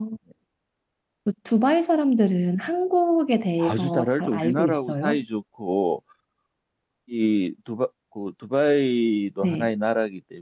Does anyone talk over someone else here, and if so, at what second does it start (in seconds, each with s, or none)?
3.6 s